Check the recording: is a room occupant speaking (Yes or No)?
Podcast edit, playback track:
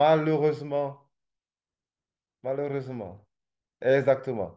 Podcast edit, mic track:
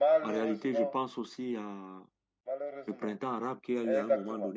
Yes